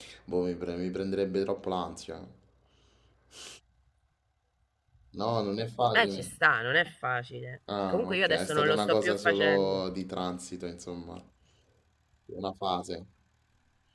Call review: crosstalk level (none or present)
present